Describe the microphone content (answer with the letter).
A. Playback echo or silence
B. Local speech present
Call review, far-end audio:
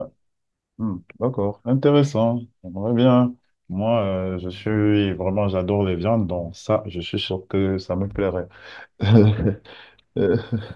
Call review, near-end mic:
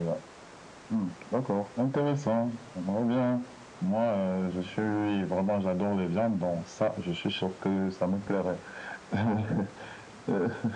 A